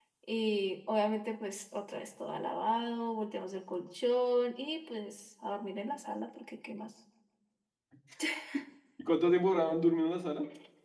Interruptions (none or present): none